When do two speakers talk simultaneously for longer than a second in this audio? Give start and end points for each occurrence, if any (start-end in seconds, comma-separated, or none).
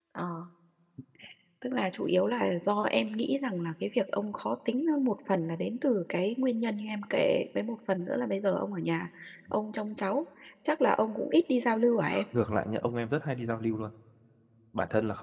none